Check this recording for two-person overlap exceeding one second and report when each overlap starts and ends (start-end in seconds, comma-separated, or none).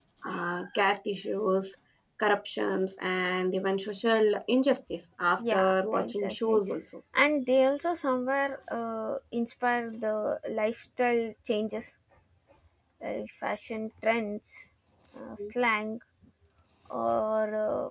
5.4-6.6